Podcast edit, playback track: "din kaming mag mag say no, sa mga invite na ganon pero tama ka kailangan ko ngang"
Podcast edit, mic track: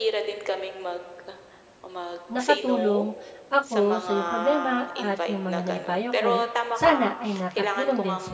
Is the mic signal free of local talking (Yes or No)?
No